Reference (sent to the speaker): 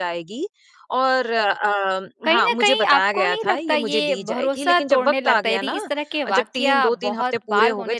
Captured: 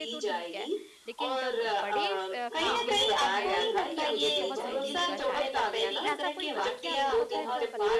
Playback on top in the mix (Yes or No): Yes